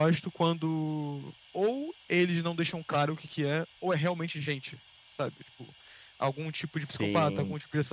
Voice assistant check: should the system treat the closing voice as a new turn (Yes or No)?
No